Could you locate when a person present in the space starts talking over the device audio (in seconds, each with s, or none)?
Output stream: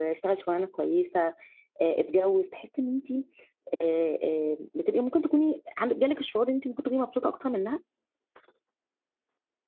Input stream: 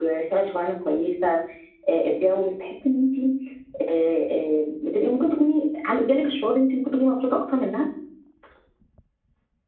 none